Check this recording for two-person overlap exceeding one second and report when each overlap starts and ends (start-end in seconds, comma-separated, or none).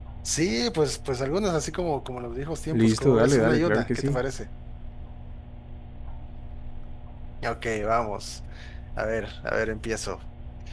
2.7-4.2